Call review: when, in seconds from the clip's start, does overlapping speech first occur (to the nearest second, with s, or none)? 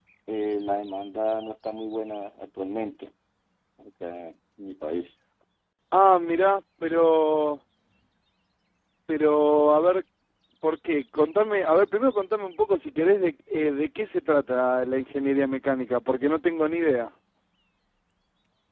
none